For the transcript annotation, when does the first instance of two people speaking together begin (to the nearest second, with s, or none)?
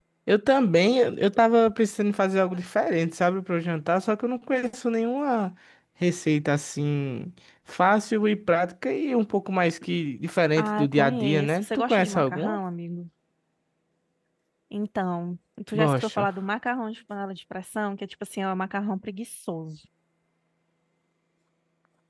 11 s